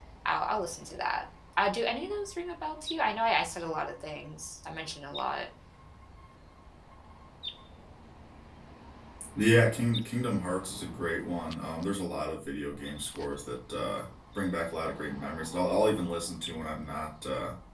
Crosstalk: none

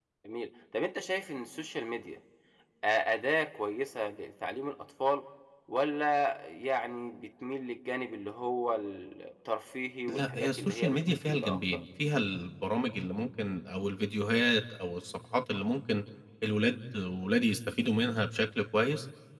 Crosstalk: present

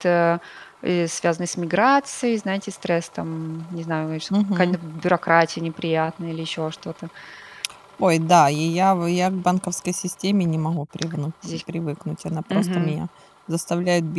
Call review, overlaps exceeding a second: none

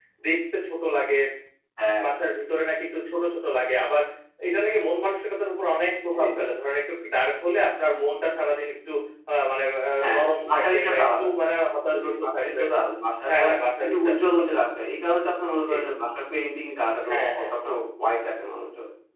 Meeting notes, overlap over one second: present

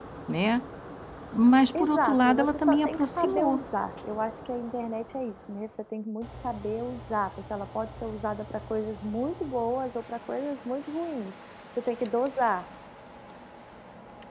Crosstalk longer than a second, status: present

